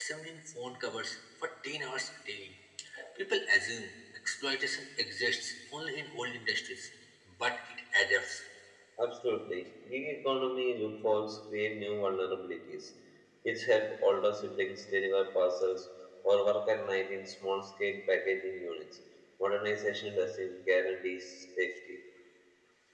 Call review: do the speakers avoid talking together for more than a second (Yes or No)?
Yes